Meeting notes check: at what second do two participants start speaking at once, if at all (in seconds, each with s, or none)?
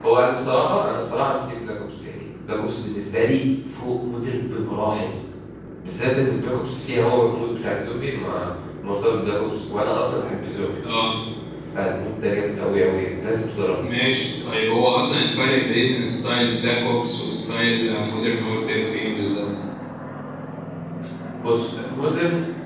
none